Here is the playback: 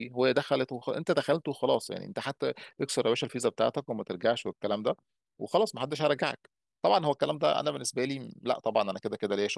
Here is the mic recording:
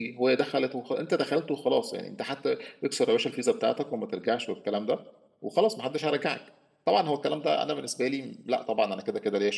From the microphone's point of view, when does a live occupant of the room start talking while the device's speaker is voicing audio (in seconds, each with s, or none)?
none